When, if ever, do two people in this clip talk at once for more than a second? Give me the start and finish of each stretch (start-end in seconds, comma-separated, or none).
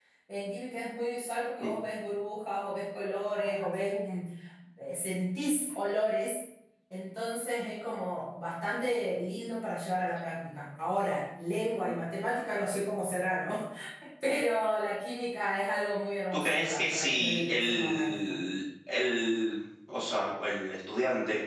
16.3-18.4